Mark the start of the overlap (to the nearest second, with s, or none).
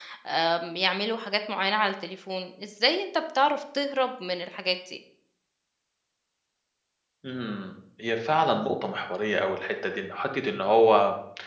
none